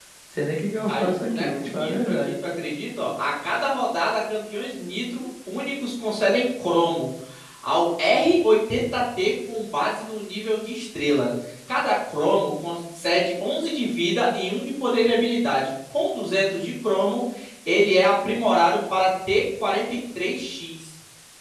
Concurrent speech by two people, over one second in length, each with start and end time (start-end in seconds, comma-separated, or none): 0.9-2.1